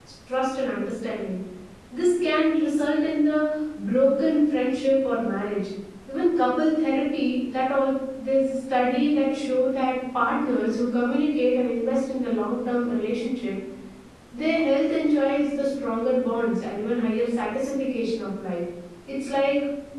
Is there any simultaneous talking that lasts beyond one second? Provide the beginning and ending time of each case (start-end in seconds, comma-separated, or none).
none